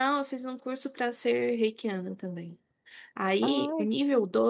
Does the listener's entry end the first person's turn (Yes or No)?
No